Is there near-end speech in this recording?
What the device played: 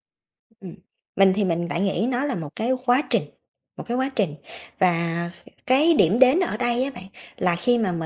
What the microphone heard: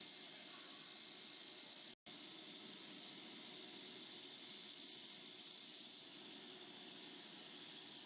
No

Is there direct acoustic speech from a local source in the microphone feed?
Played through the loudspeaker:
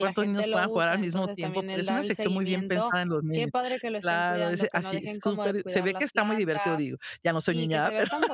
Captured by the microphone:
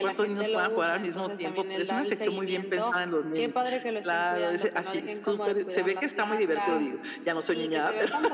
Yes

